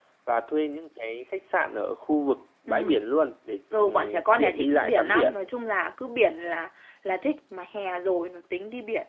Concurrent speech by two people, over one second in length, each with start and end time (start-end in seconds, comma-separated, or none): 3.8-5.3